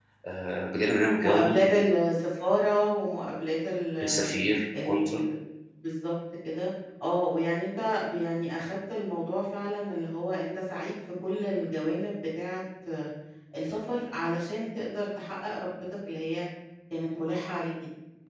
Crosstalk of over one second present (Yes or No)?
No